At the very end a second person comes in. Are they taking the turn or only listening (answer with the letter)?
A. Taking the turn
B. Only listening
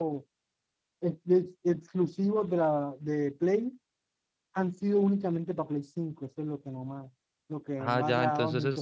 A